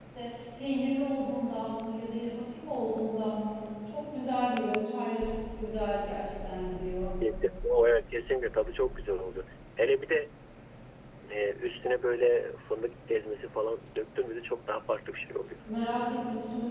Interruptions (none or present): none